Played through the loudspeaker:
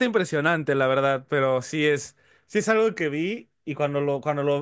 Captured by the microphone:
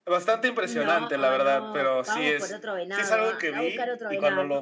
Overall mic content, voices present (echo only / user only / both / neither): both